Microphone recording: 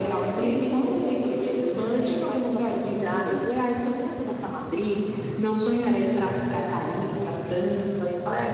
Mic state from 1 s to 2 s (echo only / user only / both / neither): echo only